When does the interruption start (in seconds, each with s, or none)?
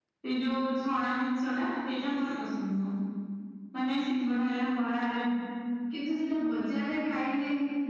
none